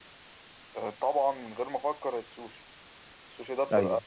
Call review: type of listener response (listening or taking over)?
listening